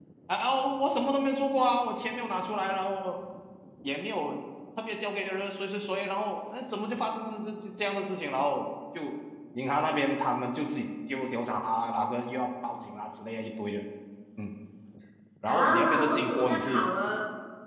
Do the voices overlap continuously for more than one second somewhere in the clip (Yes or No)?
Yes